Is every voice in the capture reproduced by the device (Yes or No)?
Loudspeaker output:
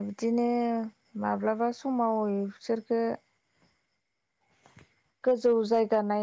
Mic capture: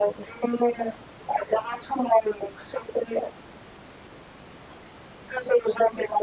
Yes